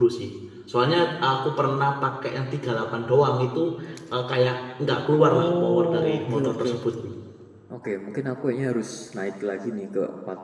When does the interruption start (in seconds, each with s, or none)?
5.2 s